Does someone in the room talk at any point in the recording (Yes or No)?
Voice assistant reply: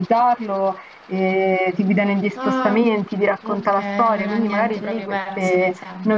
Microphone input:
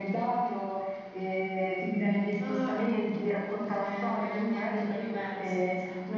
No